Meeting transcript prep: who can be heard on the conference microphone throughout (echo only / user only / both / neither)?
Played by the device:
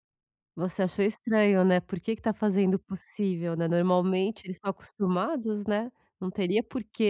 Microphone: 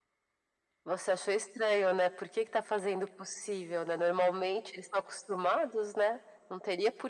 echo only